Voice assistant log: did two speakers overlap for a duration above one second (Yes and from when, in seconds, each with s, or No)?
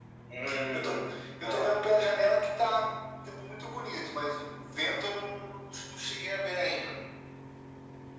No